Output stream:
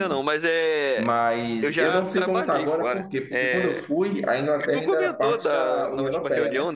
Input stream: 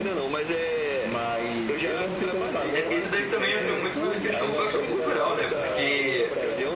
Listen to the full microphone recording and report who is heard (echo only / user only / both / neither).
both